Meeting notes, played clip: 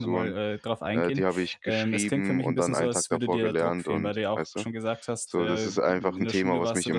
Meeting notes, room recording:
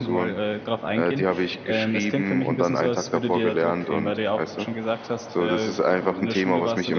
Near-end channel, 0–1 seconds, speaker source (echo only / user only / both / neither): echo only